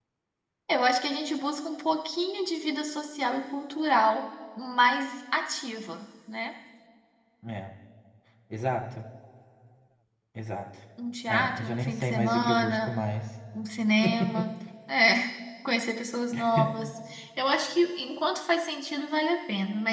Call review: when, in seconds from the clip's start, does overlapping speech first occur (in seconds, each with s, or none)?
11.3 s